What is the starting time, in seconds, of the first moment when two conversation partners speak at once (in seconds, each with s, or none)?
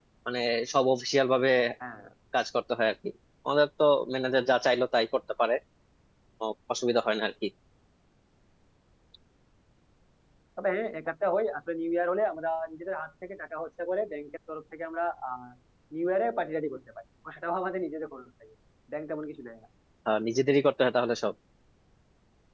none